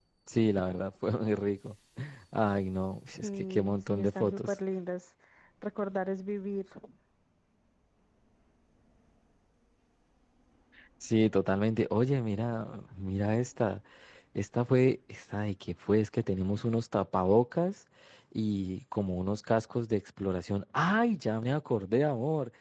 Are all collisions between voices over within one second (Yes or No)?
No